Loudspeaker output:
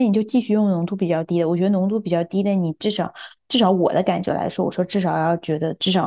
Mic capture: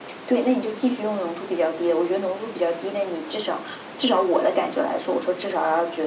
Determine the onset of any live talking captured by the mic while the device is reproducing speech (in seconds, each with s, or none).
none